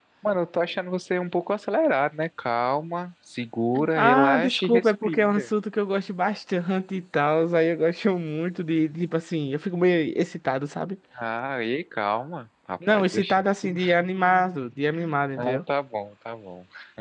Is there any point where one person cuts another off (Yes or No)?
Yes